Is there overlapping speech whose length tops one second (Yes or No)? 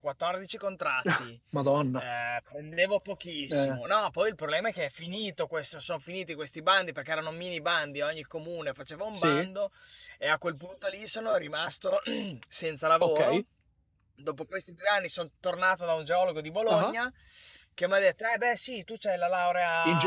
No